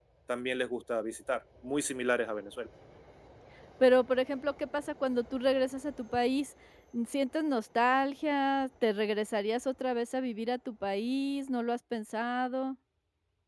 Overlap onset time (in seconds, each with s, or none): none